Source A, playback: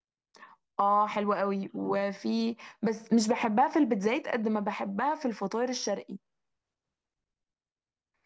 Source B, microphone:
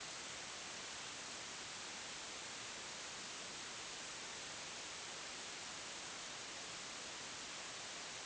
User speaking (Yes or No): No